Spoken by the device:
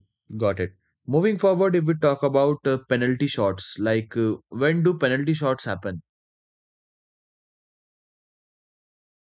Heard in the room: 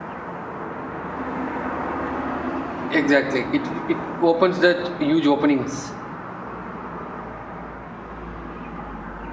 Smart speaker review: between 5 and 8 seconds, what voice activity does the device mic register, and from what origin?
user only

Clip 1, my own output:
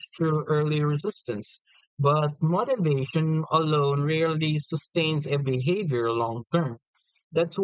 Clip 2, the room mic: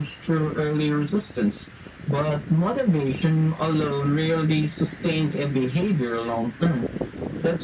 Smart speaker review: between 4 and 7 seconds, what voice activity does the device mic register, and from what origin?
echo only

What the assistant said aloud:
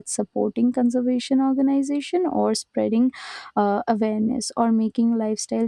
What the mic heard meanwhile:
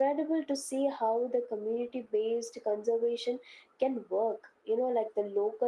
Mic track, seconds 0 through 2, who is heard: user only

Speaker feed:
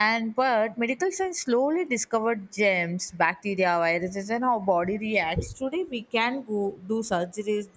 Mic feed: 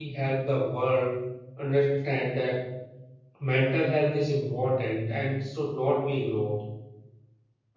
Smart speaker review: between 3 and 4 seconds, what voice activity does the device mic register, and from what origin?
user only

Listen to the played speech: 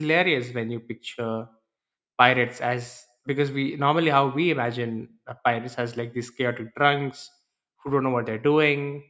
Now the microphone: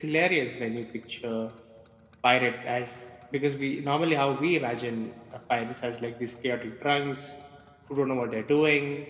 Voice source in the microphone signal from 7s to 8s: echo only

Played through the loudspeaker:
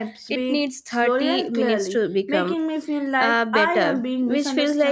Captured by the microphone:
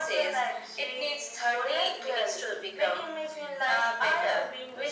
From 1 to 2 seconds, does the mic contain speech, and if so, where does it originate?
echo only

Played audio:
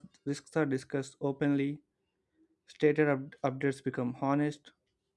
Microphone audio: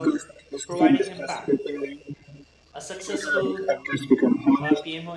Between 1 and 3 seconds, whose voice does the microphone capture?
both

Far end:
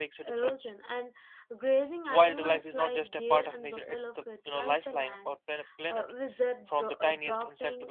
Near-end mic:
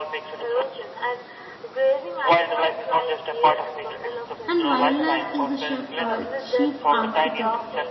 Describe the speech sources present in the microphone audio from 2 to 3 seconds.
echo only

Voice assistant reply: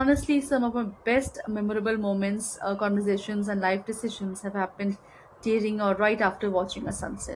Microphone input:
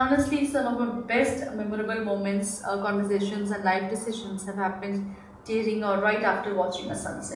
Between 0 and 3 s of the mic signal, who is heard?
echo only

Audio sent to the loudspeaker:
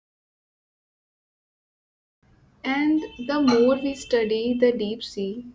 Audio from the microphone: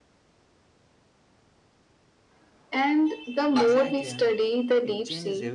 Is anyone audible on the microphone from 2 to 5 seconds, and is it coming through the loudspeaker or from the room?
both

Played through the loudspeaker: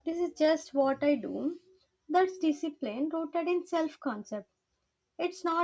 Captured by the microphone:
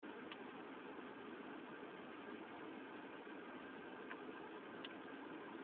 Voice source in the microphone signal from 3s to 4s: neither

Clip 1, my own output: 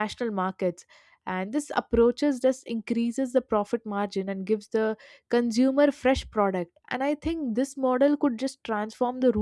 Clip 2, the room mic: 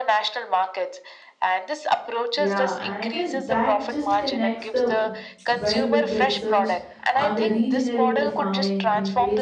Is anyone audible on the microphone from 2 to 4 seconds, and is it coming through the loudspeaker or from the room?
both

